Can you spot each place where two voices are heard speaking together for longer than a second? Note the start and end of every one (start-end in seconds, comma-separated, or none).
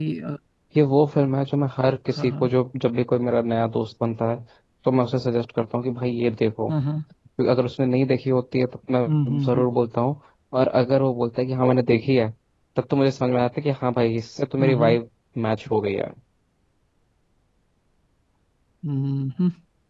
none